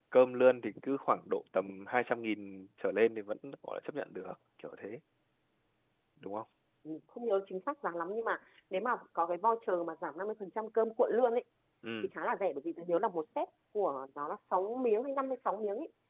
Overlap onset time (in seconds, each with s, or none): none